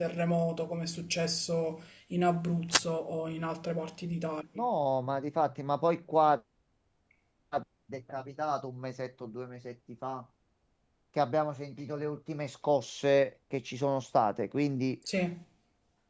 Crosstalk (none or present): none